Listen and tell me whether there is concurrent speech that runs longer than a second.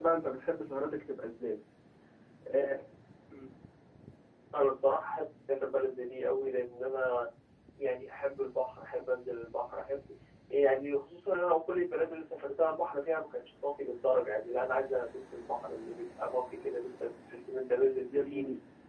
No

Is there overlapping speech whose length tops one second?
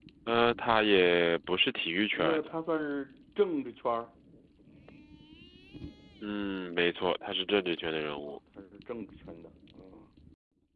No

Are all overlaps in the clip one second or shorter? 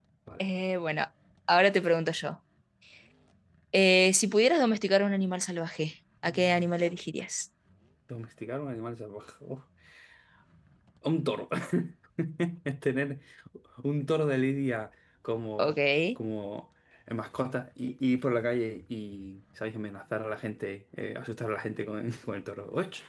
Yes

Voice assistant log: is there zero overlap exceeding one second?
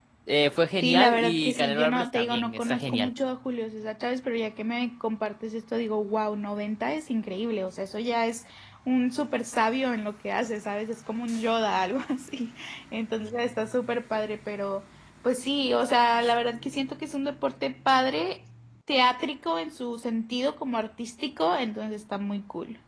No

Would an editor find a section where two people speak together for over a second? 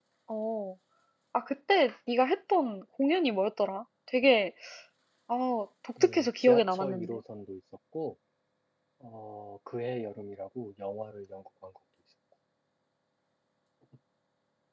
Yes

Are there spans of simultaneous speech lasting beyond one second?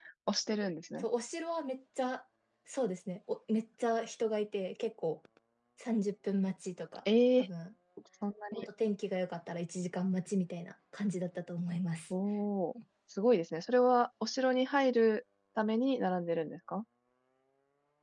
No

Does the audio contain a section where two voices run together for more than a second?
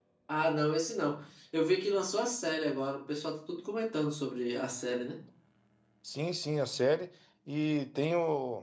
No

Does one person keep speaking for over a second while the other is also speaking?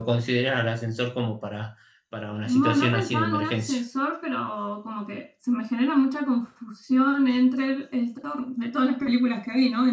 Yes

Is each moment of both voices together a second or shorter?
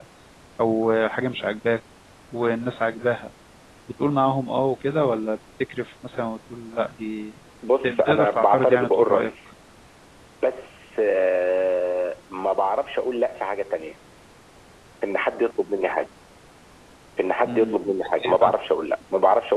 No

